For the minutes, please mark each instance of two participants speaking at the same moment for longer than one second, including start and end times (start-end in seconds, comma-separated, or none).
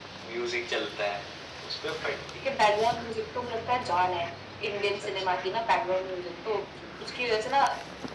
none